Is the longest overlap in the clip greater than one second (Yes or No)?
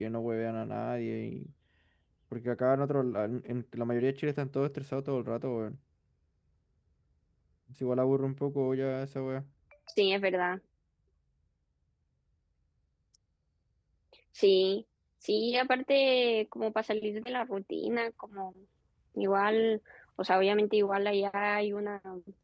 No